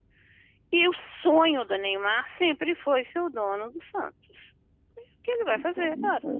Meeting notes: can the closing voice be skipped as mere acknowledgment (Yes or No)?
No